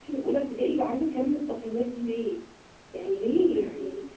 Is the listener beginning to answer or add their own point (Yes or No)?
No